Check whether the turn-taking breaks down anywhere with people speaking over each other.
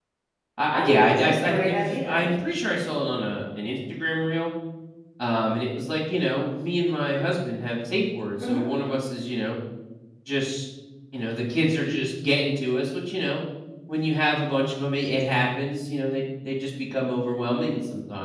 Yes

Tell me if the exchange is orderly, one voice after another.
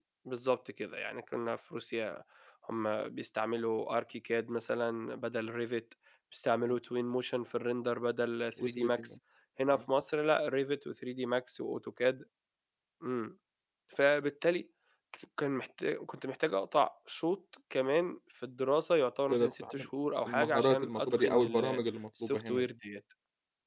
No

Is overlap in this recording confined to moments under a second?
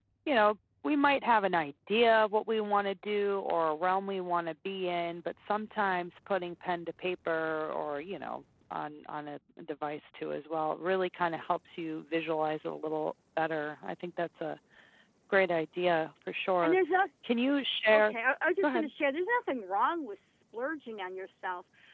Yes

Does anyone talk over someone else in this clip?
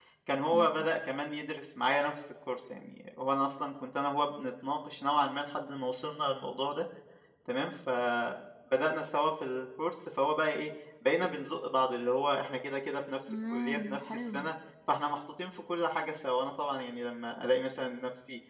Yes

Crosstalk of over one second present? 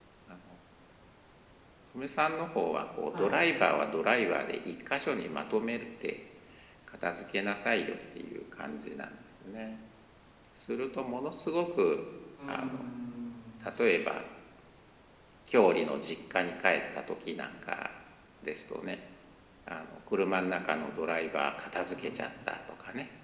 No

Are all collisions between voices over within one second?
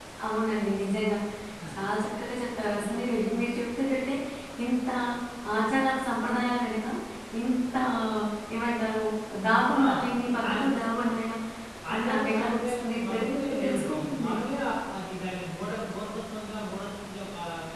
No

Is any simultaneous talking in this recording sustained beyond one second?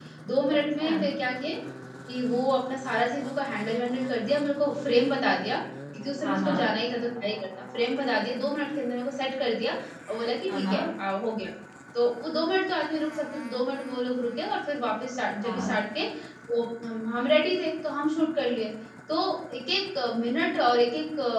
No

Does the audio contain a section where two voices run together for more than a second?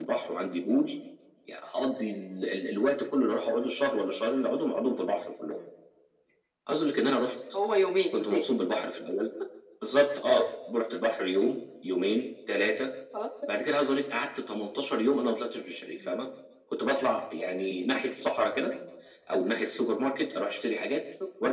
No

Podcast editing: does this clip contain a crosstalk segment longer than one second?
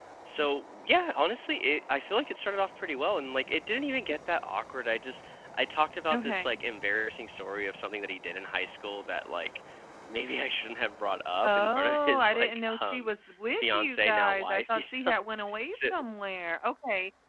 Yes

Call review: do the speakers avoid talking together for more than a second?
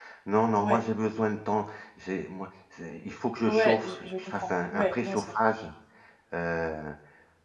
No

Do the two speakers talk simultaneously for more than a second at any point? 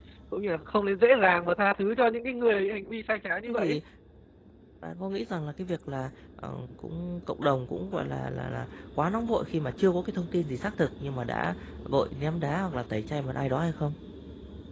No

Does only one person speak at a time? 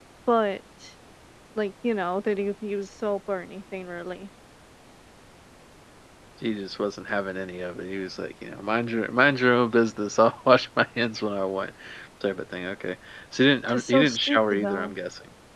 No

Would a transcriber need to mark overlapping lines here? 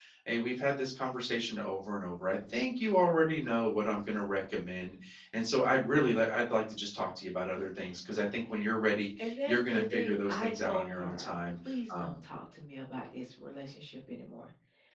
Yes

